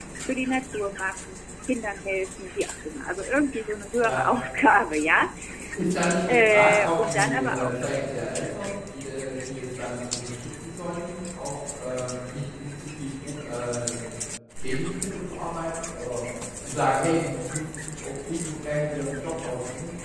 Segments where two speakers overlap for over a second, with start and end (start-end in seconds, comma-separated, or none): 6.3-7.7